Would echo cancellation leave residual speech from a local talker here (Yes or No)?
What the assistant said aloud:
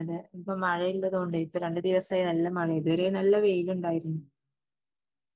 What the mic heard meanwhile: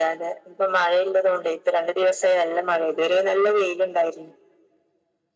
No